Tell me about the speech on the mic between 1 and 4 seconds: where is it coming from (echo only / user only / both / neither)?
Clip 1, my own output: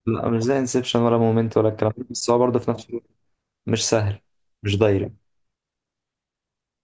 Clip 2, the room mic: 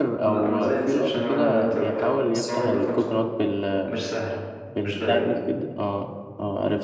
both